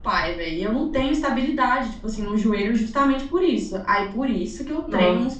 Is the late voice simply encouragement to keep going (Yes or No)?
Yes